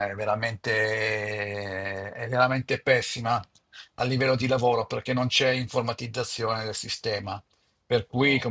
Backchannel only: Yes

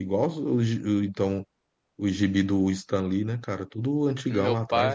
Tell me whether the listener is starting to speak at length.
Yes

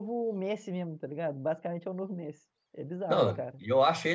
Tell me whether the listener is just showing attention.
No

